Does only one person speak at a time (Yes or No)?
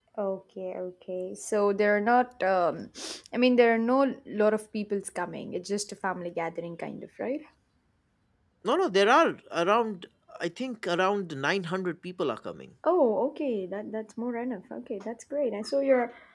Yes